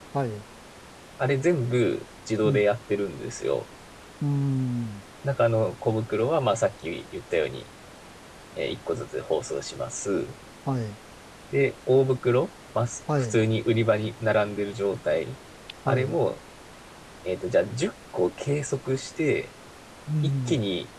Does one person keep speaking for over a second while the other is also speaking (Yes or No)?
No